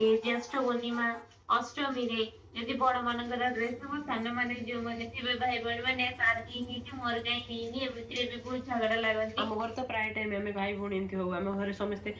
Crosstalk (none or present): none